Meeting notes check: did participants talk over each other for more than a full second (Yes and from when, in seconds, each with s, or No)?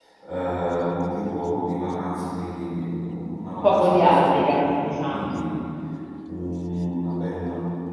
Yes, from 3.6 s